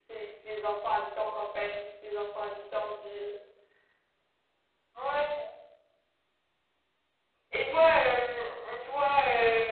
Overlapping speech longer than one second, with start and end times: none

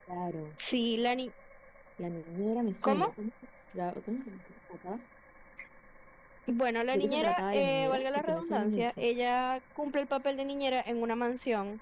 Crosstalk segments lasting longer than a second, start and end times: 6.9-9.0

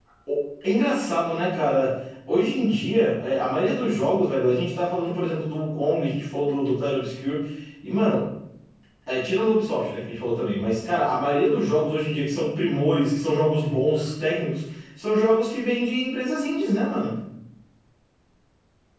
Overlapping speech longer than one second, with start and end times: none

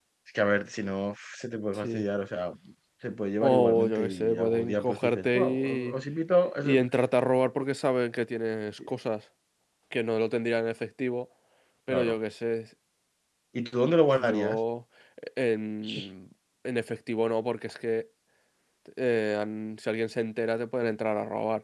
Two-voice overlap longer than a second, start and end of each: 3.4-5.9

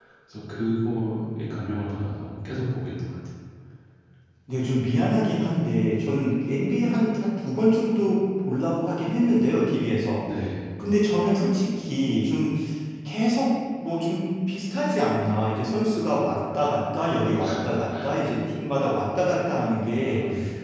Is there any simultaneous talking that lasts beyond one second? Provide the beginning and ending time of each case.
none

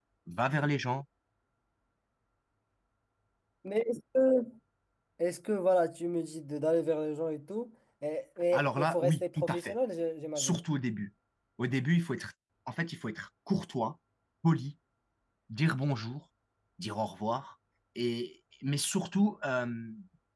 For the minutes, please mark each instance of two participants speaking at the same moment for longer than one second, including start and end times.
8.5-9.8

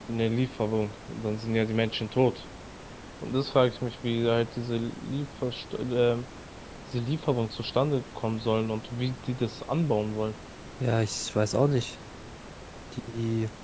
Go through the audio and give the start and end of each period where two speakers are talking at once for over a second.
none

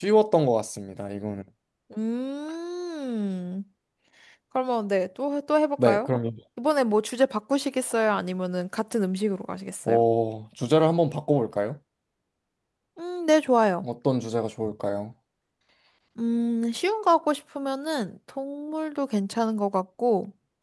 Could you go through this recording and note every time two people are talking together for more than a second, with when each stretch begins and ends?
none

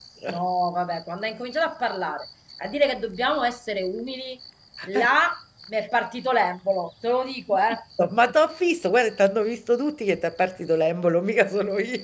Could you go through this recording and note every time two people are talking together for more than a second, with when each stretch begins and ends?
none

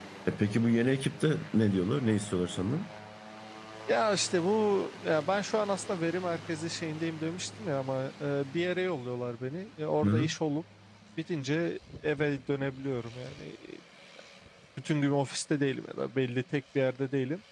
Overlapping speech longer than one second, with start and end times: none

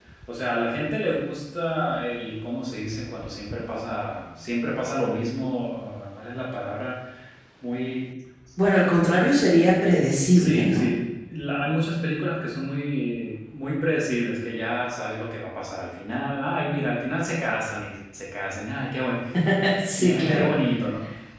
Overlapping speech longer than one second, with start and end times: none

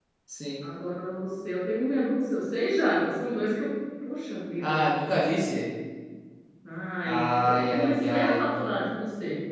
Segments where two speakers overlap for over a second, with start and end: 7.0-8.4

